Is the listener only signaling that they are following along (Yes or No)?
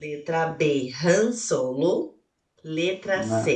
Yes